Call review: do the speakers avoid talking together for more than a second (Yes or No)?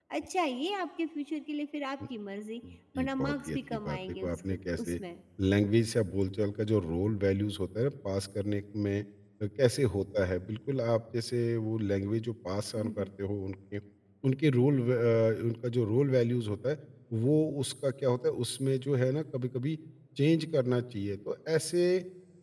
No